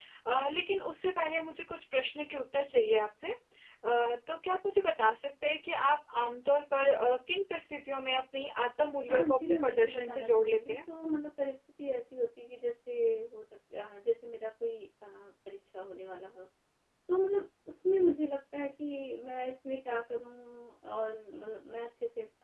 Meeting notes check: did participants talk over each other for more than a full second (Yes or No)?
Yes